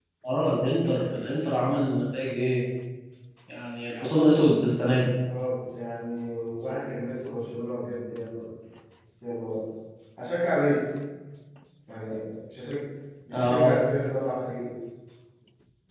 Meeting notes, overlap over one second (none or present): none